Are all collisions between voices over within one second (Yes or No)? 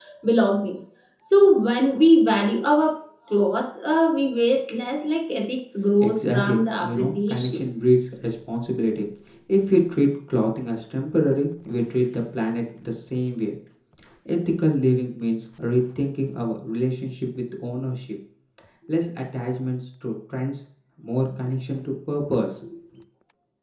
No